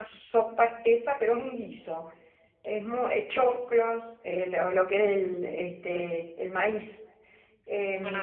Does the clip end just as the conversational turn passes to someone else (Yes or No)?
No